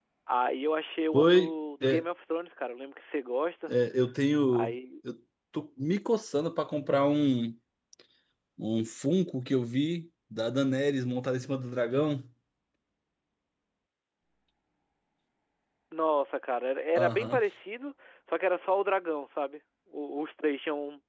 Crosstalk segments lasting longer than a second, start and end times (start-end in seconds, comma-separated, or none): none